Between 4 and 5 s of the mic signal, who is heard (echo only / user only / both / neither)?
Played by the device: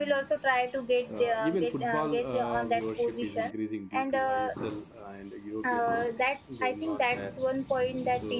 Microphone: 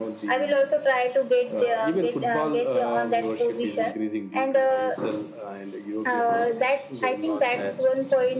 echo only